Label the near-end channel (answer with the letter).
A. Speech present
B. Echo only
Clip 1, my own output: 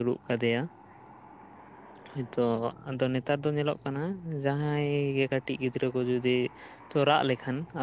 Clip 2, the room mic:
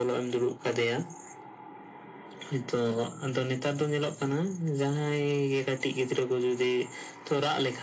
B